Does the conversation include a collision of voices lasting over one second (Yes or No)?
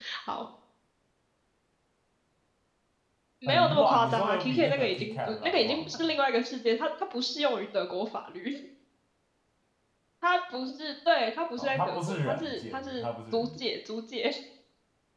Yes